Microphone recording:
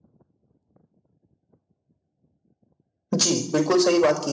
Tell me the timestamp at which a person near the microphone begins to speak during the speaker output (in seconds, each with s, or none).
3.1 s